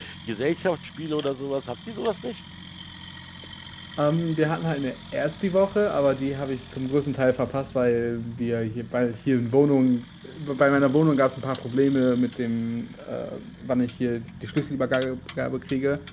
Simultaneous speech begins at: none

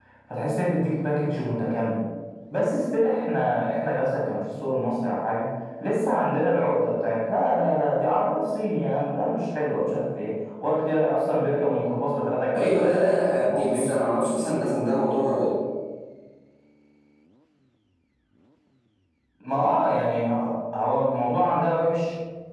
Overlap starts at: 12.5 s

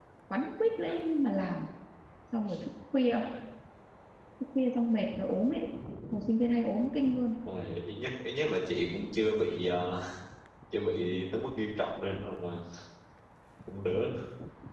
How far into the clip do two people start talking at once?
none

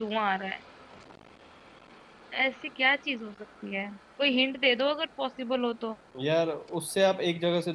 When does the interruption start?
none

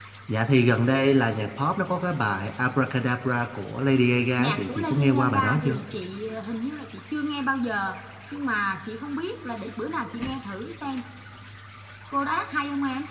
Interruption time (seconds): 4.4 s

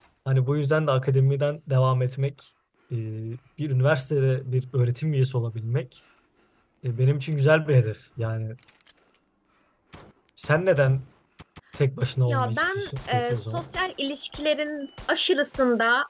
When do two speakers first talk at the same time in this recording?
12.3 s

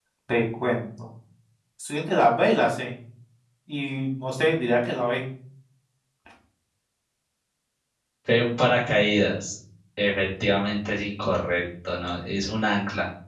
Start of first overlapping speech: none

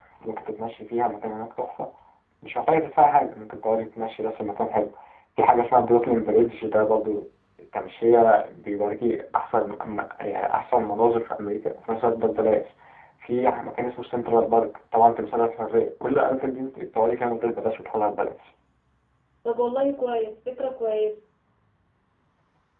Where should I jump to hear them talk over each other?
none

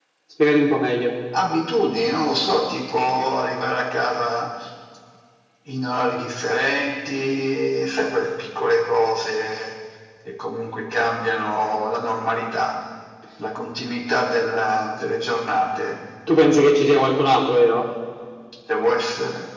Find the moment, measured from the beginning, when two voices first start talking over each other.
none

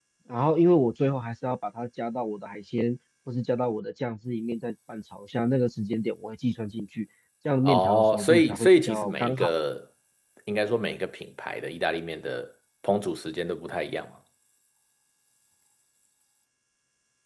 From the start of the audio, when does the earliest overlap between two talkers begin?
7.7 s

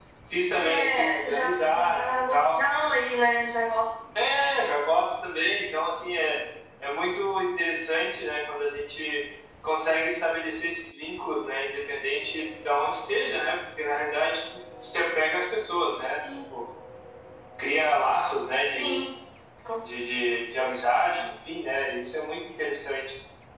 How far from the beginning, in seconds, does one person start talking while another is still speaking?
0.6 s

